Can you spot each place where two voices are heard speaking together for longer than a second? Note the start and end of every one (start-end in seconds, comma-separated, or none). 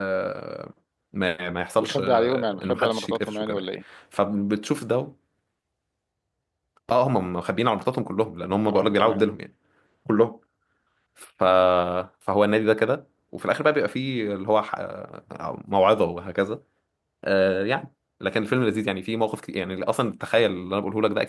1.8-3.6